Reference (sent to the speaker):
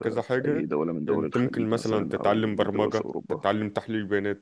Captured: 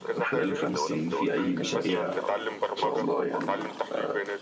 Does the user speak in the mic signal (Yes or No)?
Yes